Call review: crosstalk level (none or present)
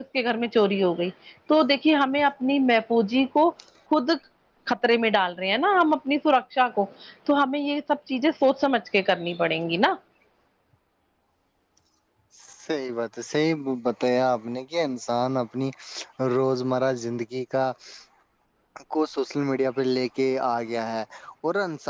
none